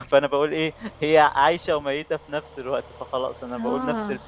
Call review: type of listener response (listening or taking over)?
taking over